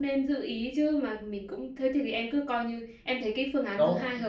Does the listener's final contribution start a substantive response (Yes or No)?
Yes